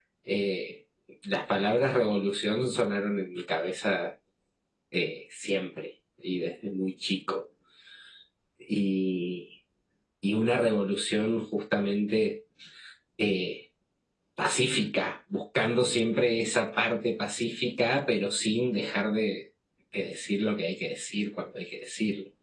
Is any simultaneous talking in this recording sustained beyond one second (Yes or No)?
No